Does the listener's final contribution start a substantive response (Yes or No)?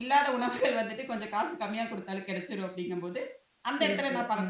No